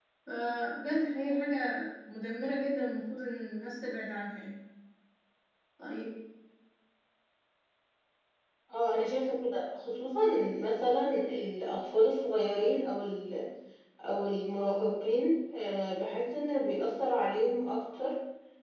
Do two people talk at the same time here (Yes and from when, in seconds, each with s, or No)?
No